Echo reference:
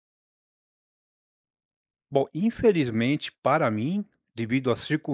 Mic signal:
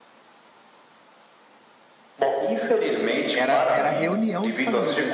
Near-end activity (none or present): present